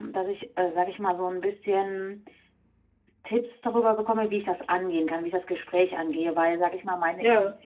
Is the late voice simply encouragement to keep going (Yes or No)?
Yes